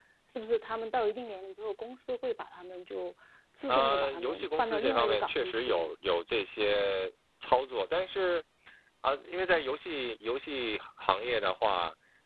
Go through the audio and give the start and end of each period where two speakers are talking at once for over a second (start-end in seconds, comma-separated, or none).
3.7-6.0